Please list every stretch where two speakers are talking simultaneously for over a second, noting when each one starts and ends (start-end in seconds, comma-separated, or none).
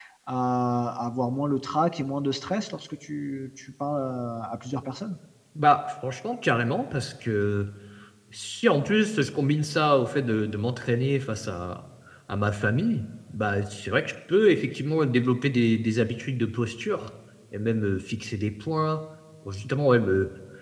none